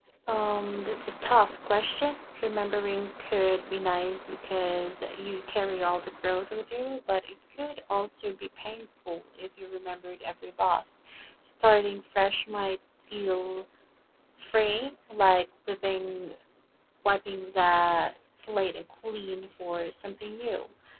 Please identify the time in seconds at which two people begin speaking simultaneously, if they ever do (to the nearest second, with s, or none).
none